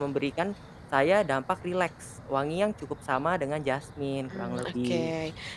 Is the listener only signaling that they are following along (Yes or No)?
No